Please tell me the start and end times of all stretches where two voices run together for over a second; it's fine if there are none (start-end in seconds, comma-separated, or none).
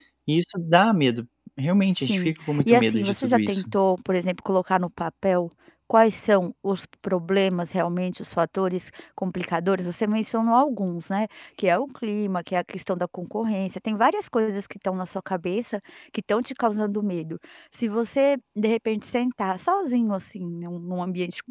1.9-3.7